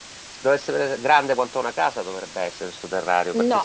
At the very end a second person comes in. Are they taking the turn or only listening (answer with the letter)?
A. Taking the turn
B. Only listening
A